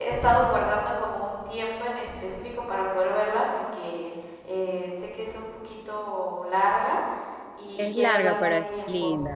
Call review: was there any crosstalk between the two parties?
Yes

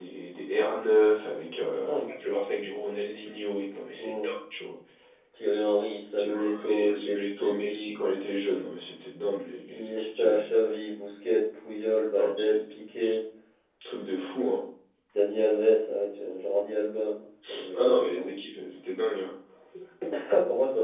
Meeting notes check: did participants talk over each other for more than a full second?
Yes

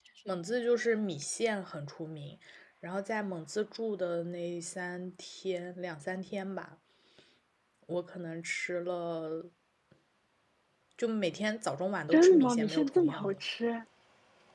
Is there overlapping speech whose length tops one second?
Yes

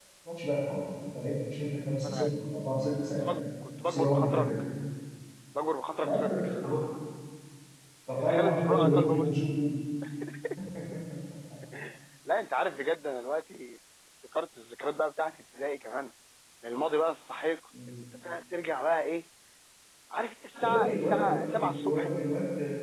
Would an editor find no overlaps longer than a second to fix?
No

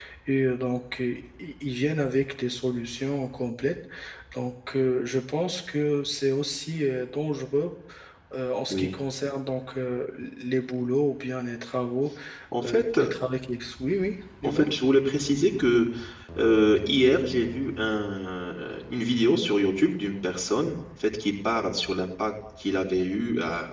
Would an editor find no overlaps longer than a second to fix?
Yes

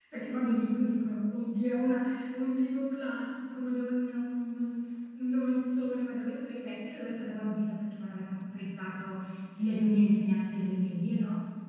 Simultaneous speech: No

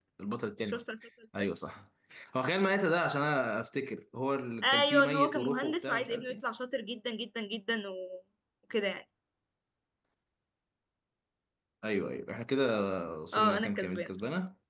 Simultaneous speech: Yes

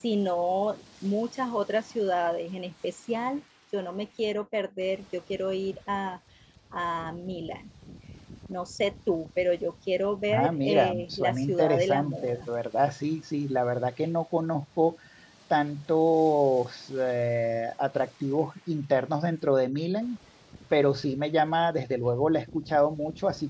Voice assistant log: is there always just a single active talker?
No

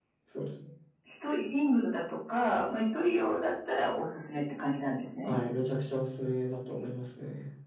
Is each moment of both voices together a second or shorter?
Yes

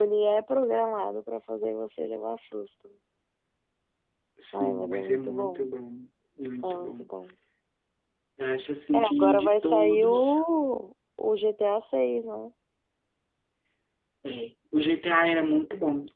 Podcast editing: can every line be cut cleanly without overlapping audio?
No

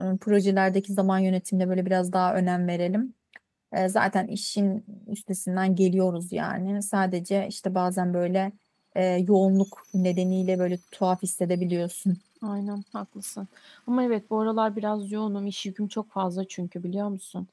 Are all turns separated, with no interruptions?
Yes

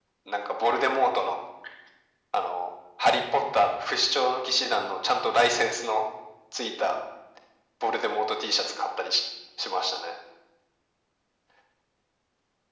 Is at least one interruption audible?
No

